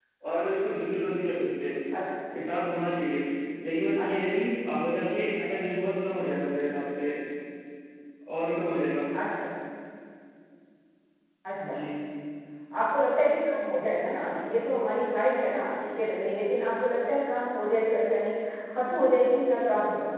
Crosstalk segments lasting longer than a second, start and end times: none

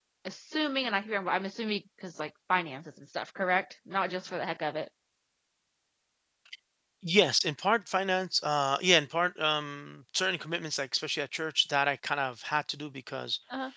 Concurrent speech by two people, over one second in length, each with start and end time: none

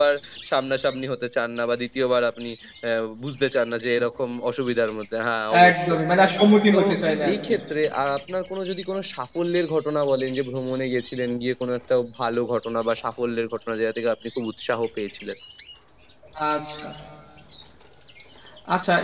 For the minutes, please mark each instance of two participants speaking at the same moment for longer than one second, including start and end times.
none

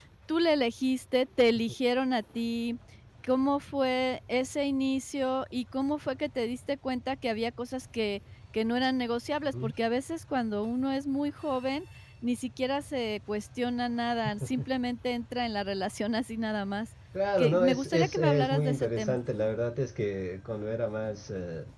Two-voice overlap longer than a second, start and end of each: 17.4-19.2

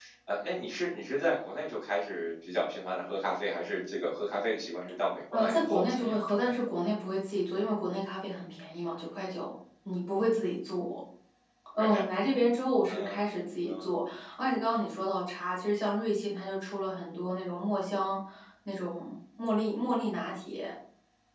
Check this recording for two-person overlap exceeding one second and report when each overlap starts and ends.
5.3-6.5

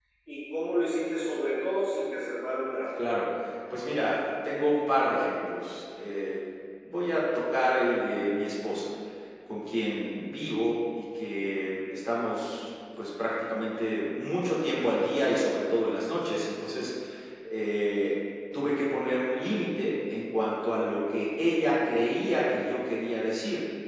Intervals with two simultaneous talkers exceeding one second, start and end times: none

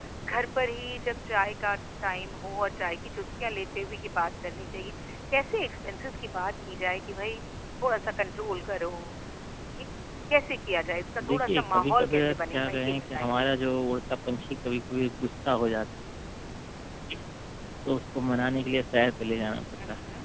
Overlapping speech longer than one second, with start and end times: 11.3-13.3

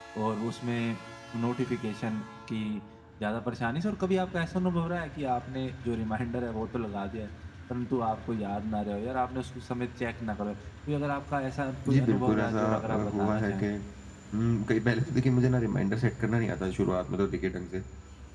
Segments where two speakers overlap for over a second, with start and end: 11.9-13.7

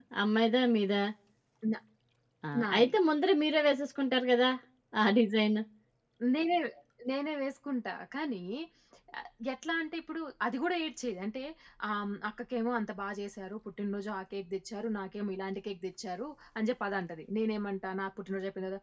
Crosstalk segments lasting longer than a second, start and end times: none

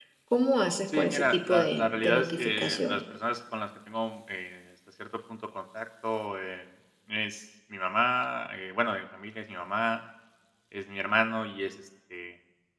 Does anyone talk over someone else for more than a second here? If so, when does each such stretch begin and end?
0.9-3.0

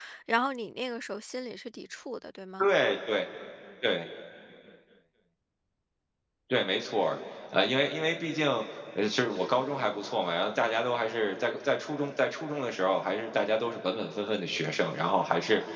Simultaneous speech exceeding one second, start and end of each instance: none

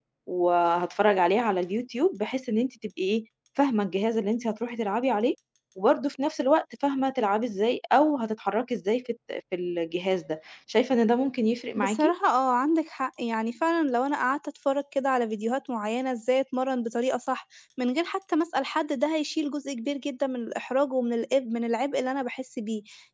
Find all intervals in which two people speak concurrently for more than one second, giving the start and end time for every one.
none

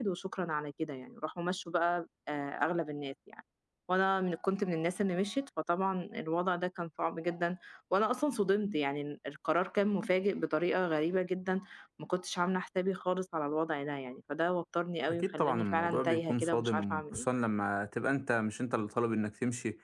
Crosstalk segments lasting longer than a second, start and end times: 15.1-17.2

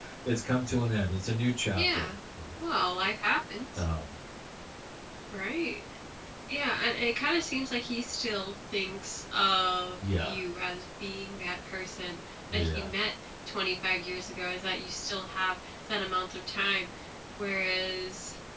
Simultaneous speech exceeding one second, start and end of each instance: none

